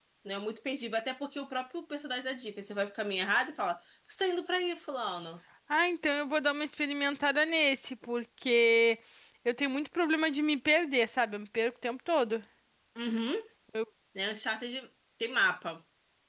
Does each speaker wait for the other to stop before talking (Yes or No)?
Yes